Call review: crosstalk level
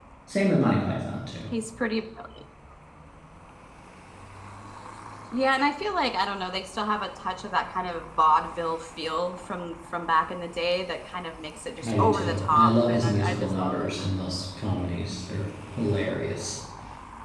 present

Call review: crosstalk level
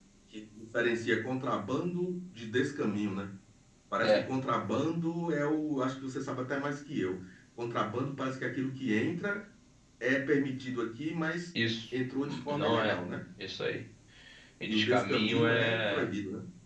present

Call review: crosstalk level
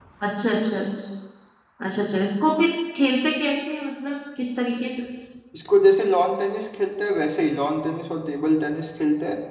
none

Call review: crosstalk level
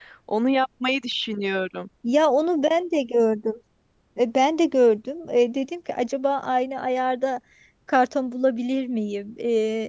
none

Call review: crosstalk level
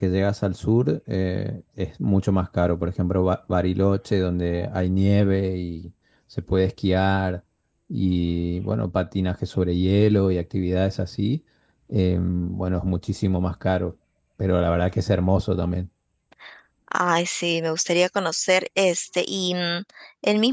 none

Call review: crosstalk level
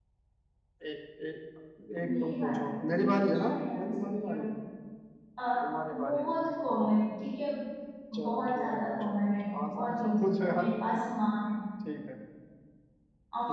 present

